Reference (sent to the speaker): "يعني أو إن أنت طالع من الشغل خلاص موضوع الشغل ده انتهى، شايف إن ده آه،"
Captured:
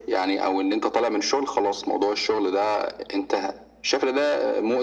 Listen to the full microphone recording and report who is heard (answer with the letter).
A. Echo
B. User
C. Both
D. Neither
A